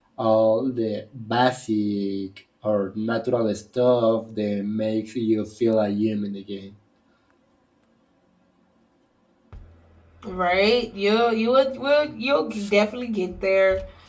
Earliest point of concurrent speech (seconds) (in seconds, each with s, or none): none